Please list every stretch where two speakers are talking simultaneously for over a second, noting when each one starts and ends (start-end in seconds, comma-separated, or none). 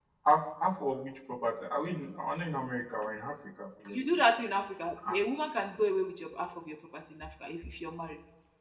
none